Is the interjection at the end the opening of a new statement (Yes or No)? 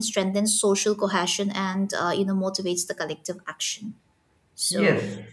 Yes